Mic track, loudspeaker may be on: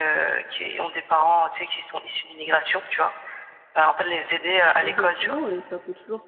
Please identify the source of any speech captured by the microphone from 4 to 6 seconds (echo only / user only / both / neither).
both